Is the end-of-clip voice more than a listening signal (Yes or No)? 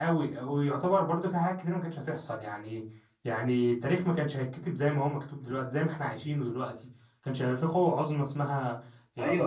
Yes